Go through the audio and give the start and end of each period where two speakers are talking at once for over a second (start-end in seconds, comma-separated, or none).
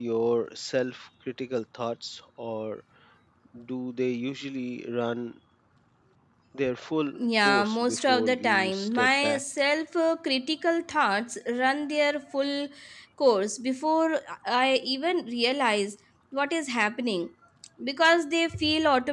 7.2-9.4